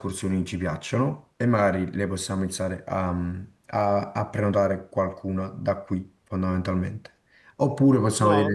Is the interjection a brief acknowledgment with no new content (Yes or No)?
Yes